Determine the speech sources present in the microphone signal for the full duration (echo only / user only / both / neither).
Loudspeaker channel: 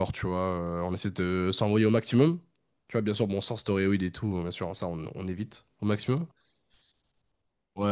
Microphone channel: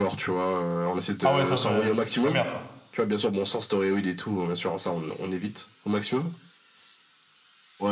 both